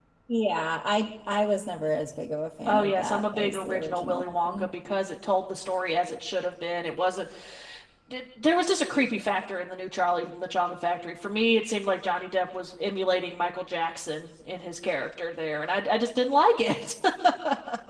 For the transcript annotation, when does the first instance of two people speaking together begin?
2.7 s

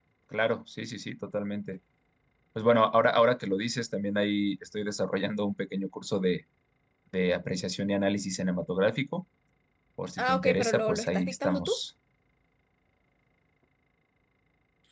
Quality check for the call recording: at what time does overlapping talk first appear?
10.2 s

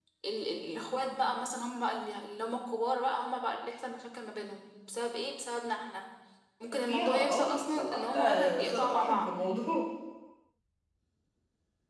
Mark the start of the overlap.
6.7 s

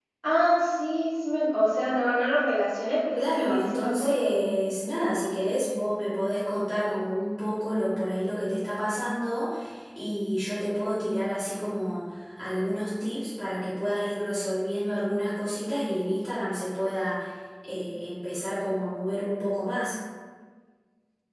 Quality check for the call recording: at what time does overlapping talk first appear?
3.1 s

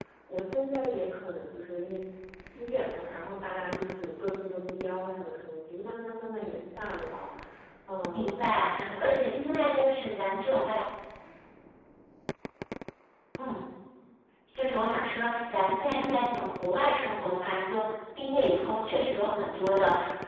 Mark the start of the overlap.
8.0 s

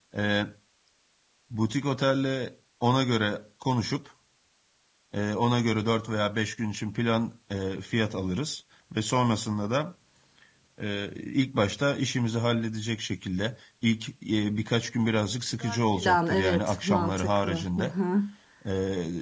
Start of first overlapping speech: 15.6 s

